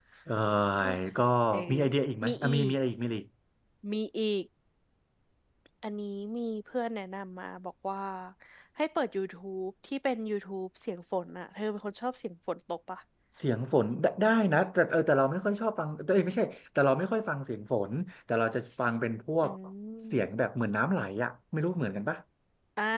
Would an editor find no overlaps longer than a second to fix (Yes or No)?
Yes